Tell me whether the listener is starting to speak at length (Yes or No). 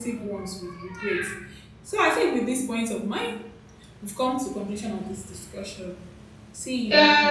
Yes